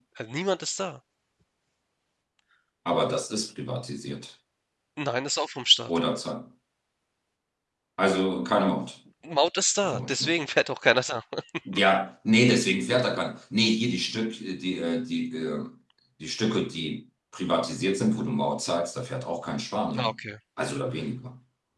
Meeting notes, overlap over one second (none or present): none